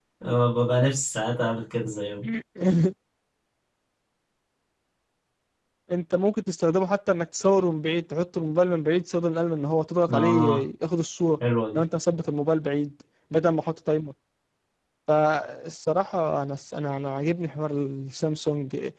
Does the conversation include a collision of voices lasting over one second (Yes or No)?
No